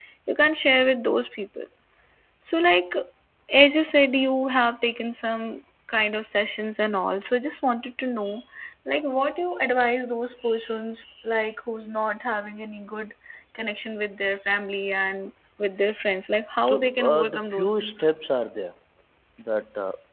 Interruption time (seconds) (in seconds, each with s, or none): 16.6 s